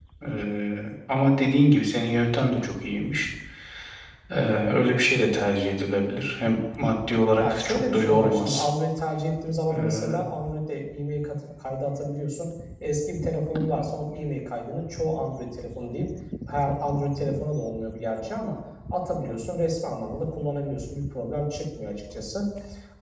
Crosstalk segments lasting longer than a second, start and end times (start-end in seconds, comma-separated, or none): 7.4-8.7